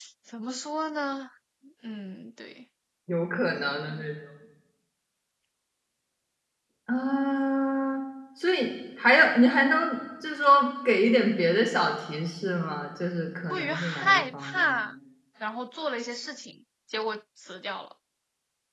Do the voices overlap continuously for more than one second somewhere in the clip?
Yes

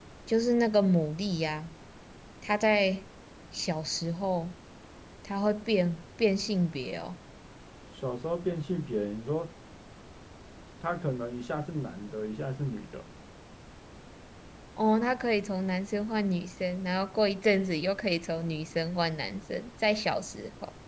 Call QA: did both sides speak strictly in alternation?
Yes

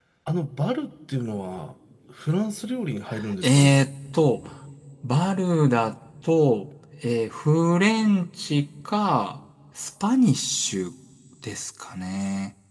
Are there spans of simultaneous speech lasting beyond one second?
No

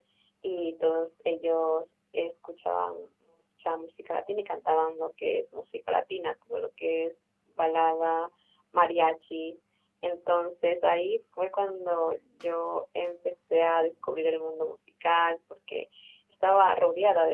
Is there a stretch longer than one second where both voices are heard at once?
No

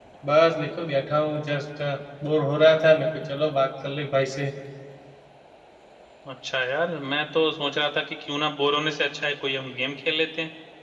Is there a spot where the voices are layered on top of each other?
No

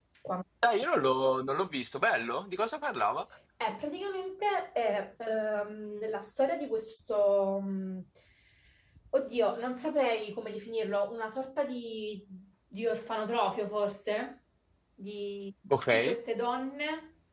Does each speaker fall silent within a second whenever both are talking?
Yes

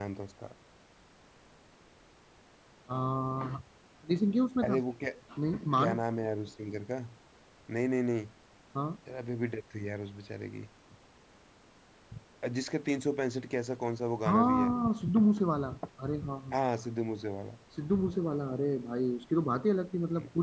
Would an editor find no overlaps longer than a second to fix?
Yes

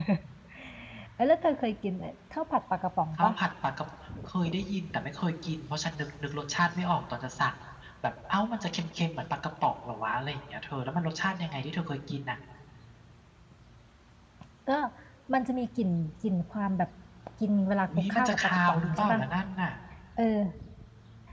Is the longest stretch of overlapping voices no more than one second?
No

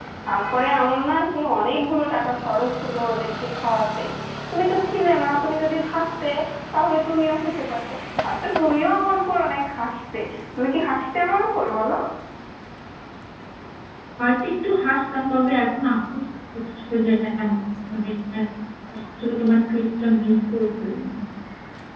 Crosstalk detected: No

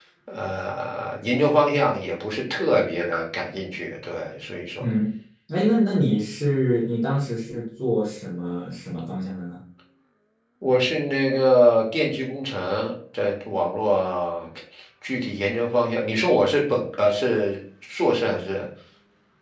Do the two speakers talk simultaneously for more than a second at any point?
No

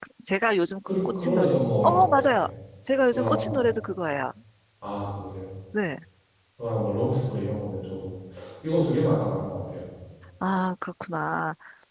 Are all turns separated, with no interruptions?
No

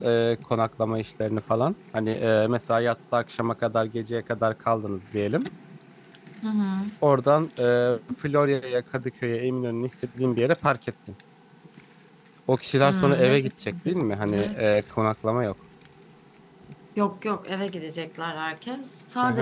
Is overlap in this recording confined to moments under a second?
No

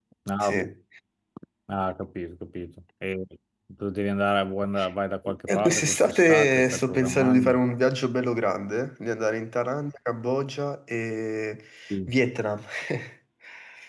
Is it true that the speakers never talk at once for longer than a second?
No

